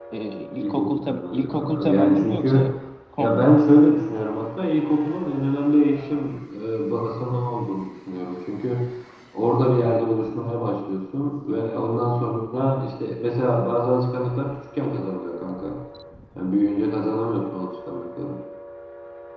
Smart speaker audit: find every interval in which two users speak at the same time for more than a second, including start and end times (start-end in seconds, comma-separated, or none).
0.6-2.6